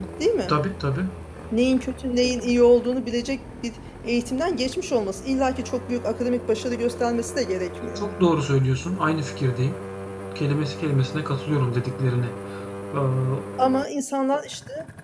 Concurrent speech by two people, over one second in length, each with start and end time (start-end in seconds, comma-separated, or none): none